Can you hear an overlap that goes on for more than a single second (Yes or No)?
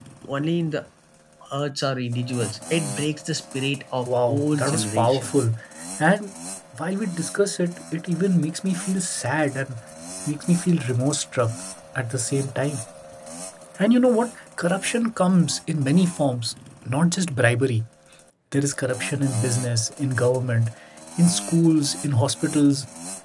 Yes